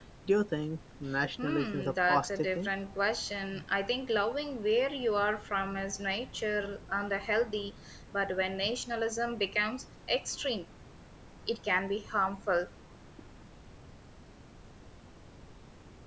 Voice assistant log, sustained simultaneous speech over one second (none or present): present